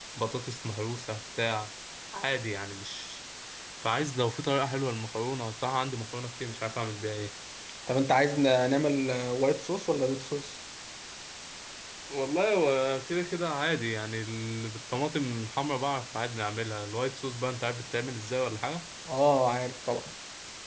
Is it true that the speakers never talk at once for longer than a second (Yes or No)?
Yes